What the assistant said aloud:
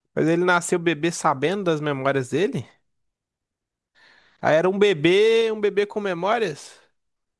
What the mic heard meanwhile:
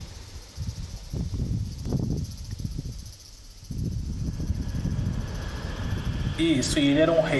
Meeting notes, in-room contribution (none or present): present